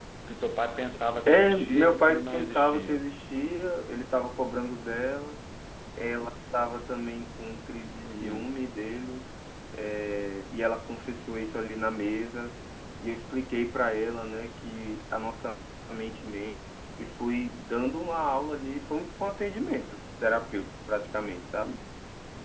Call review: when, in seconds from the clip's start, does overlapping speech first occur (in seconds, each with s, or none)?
1.3 s